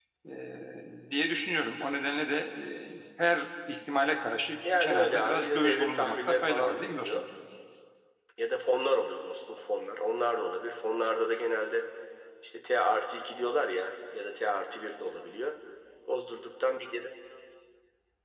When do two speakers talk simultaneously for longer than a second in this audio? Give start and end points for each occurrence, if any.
4.8-7.1

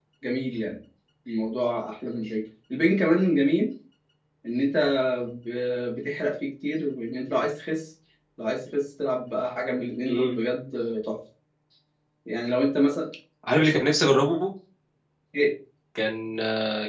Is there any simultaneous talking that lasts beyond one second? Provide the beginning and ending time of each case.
none

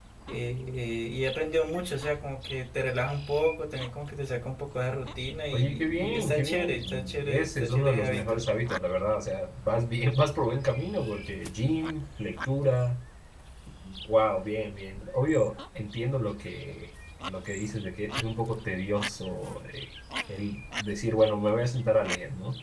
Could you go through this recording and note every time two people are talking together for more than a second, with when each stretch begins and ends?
5.5-8.4

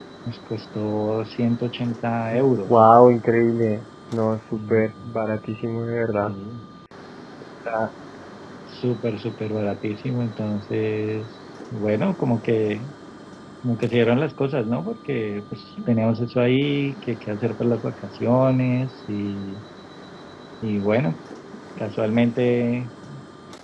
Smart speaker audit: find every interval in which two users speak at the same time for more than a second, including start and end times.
none

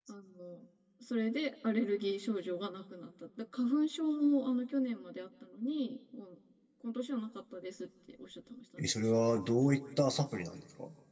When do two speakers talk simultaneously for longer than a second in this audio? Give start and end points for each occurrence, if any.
none

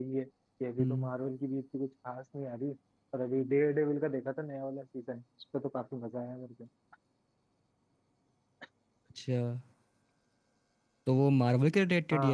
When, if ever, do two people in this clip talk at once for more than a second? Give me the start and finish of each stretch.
none

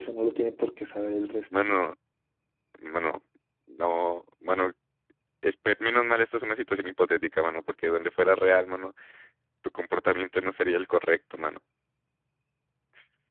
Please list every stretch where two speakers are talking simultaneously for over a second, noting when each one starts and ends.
none

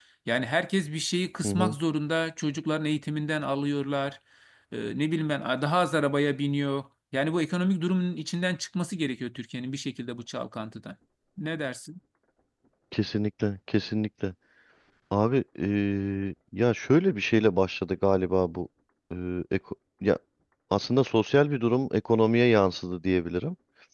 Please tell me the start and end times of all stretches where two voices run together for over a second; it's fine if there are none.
none

